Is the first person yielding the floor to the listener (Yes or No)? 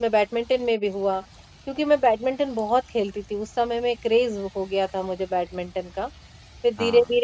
No